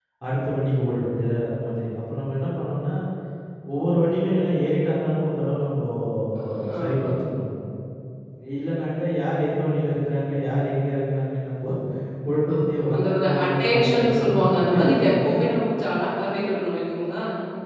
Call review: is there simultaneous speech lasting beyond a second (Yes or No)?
Yes